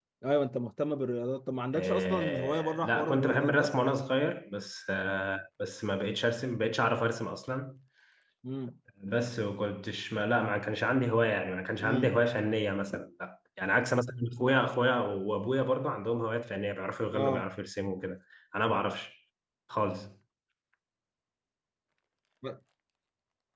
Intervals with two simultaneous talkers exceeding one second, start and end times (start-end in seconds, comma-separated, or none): 1.7-3.7